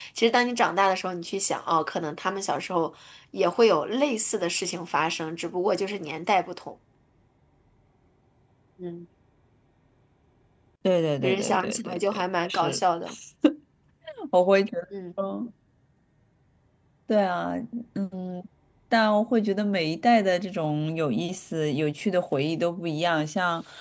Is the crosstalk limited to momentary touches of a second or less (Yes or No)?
No